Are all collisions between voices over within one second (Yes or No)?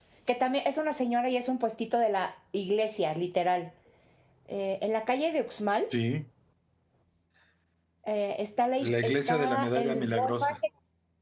No